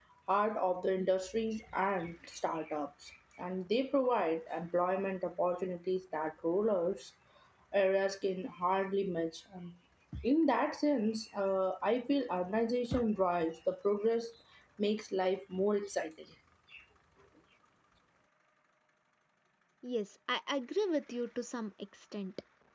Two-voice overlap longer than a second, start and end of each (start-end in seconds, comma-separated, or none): none